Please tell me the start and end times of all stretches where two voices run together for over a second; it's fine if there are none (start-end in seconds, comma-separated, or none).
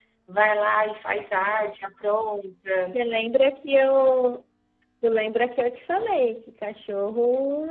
none